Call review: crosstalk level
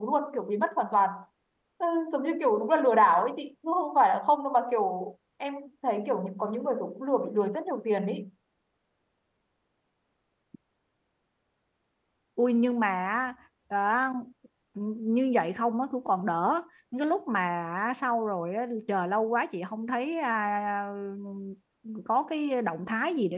none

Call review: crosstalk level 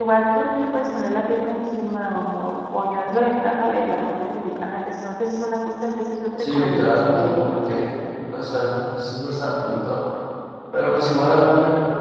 present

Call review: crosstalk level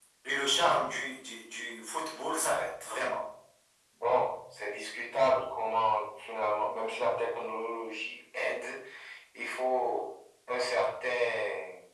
none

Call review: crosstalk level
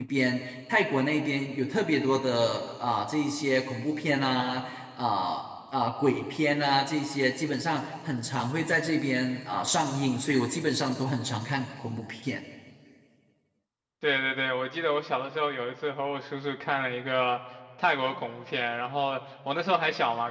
none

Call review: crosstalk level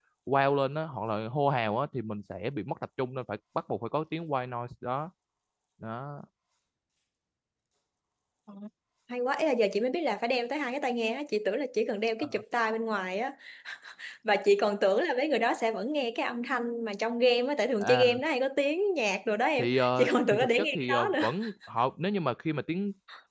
present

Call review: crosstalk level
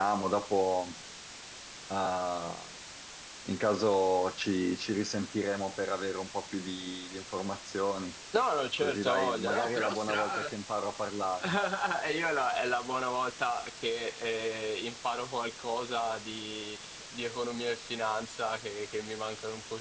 present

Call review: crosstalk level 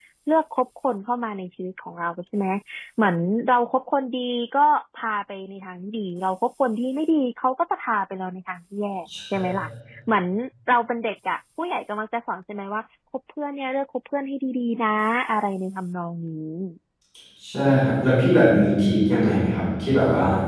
none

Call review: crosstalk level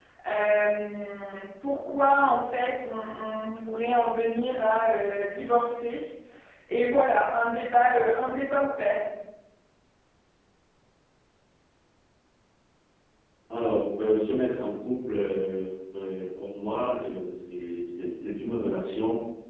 none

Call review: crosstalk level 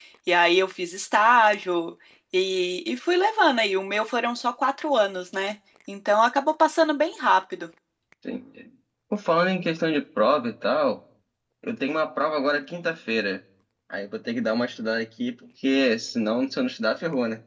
none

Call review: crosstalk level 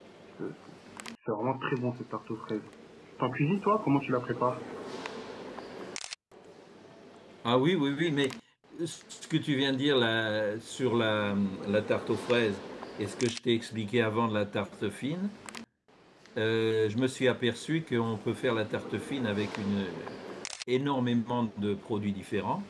none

